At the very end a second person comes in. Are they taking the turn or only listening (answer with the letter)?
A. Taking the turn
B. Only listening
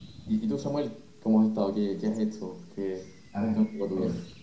A